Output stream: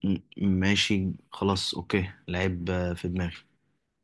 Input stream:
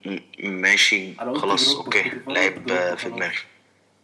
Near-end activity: present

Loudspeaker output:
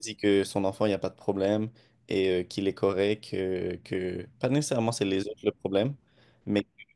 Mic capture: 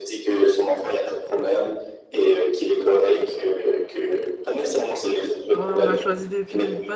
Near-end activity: present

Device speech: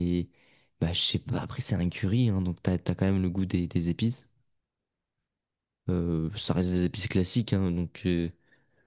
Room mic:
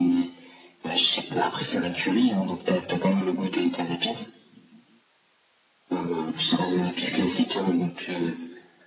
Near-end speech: none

